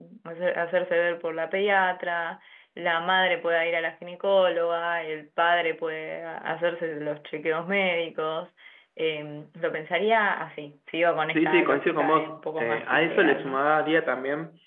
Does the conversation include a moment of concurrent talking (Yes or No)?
Yes